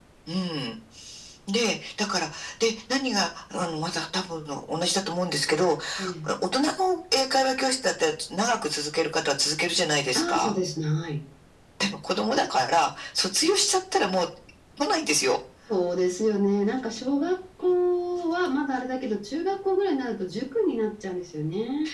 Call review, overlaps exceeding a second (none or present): none